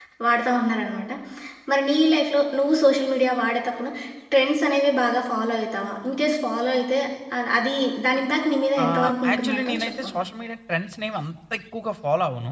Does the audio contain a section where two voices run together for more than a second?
Yes, from 8.8 s

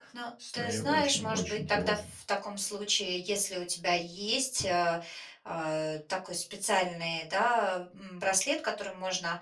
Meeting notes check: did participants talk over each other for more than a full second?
Yes, from 0.5 s

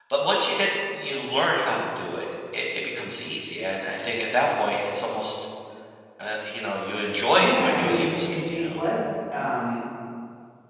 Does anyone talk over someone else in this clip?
Yes, from 7.3 s

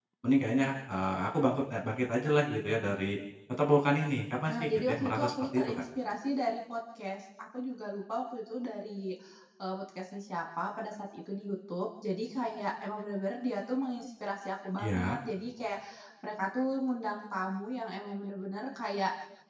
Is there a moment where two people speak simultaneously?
Yes, from 4.4 s

